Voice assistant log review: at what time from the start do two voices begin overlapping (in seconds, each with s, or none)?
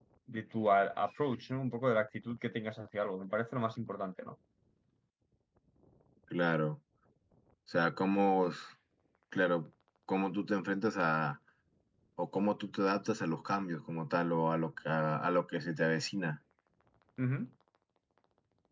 none